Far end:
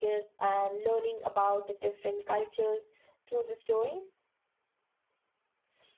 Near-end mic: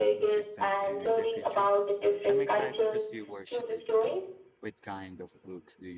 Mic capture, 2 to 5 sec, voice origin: both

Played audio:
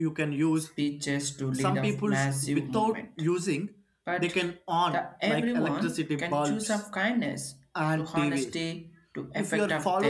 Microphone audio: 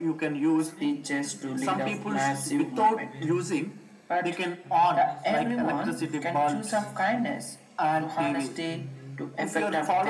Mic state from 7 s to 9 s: both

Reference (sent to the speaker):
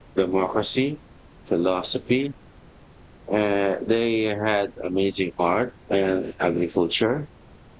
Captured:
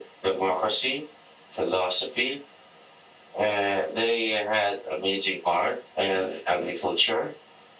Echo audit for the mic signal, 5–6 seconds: echo only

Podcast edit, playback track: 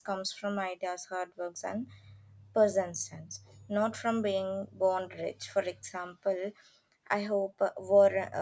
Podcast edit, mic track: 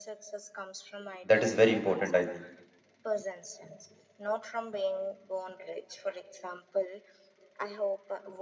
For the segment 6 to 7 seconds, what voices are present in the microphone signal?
echo only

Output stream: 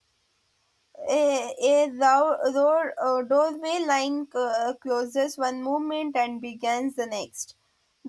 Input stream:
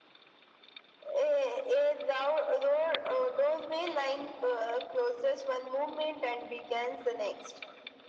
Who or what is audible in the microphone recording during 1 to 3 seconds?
echo only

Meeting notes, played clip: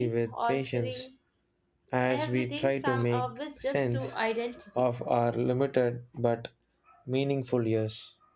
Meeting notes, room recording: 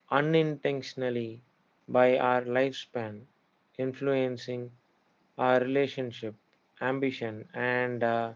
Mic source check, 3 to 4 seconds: user only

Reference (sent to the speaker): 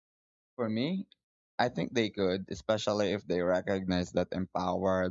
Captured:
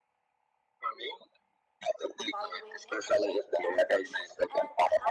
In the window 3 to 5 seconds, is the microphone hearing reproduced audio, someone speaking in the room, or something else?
both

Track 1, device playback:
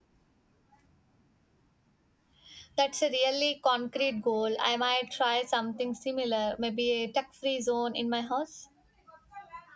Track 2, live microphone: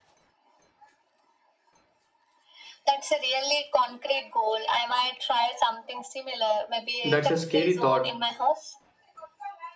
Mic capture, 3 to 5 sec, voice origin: echo only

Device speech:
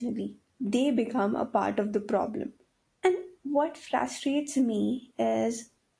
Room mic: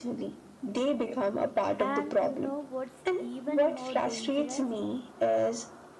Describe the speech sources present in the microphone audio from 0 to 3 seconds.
both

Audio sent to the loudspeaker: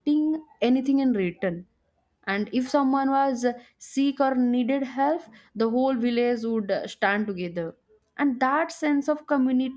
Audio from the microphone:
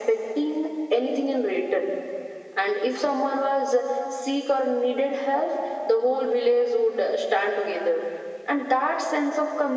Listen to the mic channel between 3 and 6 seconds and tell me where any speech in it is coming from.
echo only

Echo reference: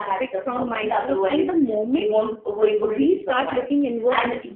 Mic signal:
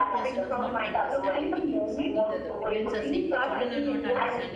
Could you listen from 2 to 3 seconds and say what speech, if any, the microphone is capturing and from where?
both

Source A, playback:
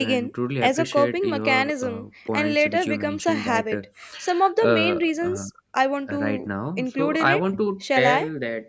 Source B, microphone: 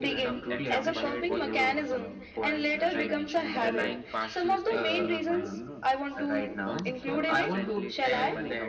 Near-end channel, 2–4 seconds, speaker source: both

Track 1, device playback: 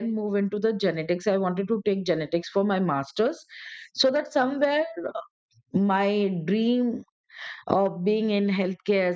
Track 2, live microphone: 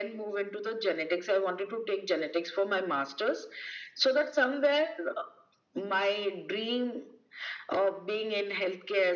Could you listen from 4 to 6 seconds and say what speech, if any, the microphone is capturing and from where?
echo only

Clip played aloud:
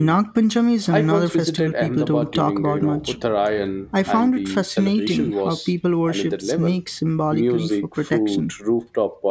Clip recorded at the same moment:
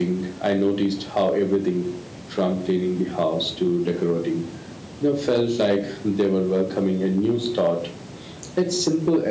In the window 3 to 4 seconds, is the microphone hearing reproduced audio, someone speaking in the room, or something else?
user only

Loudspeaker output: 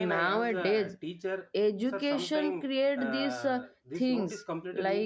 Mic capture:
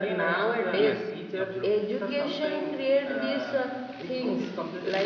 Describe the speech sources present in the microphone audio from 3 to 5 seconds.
echo only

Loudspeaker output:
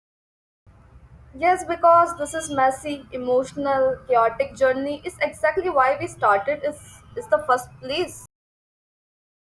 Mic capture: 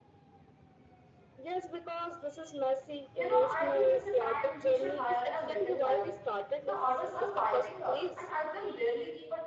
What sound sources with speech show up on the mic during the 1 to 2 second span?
echo only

